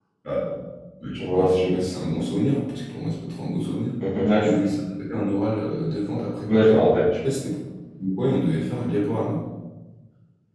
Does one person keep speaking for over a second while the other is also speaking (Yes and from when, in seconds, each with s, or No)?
No